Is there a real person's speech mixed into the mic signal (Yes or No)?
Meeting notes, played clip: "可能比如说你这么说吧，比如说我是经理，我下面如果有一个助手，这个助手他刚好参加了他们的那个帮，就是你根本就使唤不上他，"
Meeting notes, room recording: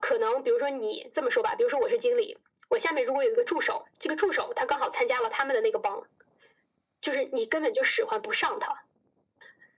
No